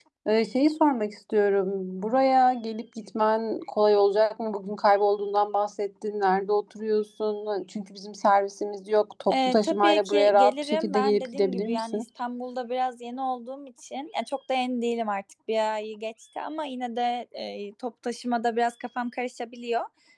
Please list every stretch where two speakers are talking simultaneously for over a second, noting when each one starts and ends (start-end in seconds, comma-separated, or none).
9.3-12.0